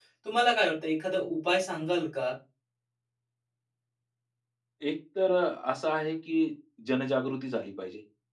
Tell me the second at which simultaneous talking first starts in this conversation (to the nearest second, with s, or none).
none